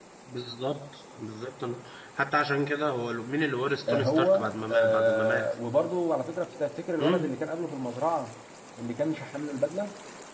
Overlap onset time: 3.9 s

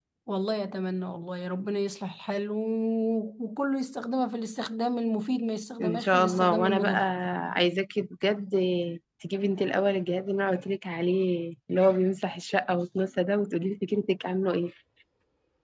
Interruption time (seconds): 5.8 s

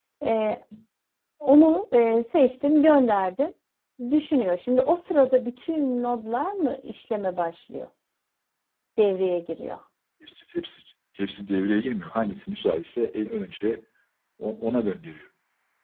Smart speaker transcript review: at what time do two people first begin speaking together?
none

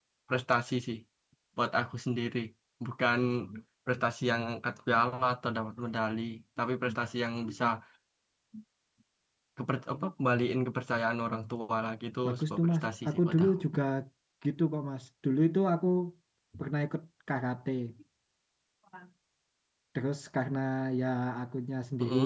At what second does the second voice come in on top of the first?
12.2 s

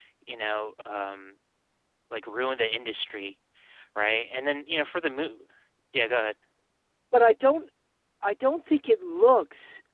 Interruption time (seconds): none

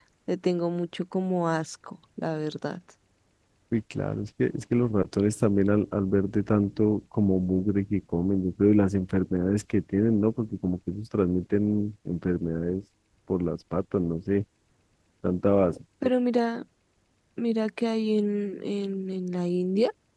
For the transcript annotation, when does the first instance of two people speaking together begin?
none

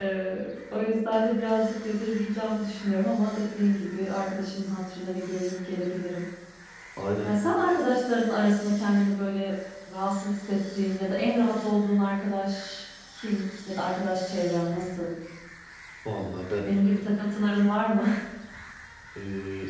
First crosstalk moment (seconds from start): none

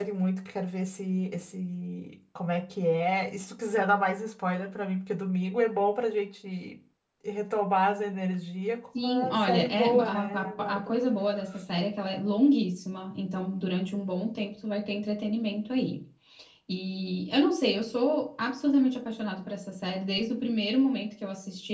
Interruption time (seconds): 8.9 s

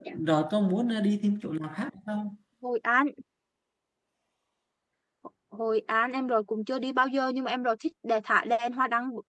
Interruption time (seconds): none

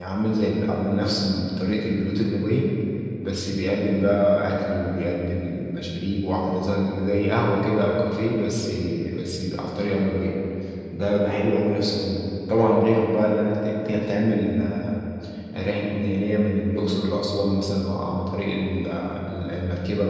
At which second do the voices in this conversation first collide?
none

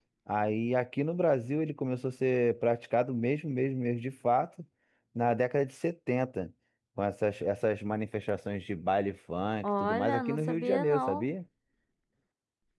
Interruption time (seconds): 9.6 s

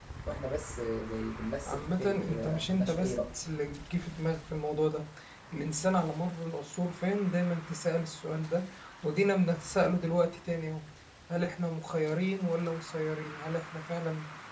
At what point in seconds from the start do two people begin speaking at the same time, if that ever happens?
1.6 s

